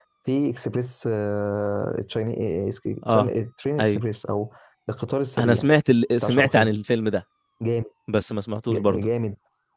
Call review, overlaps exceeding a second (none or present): none